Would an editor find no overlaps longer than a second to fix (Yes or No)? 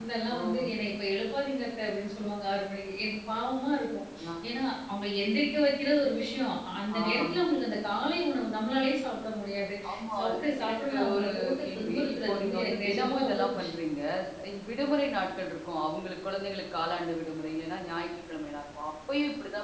No